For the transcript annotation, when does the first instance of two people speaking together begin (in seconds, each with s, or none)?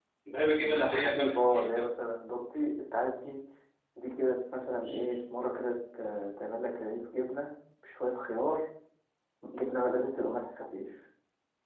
0.6 s